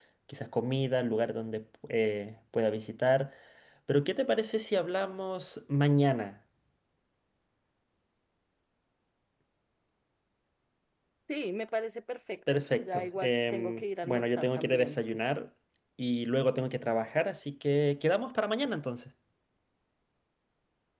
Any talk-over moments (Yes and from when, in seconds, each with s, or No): Yes, from 12.5 s